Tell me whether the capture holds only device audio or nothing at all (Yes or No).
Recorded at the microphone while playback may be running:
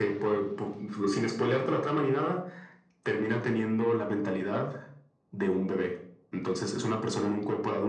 Yes